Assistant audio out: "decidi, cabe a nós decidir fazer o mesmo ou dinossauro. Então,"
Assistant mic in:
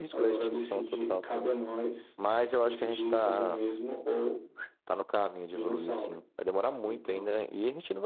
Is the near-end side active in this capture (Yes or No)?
Yes